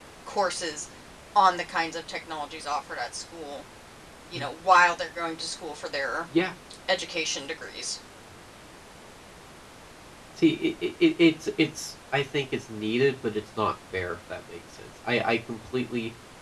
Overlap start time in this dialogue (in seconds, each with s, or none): none